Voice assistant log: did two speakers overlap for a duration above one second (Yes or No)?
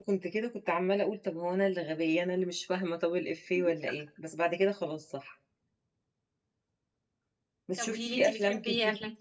Yes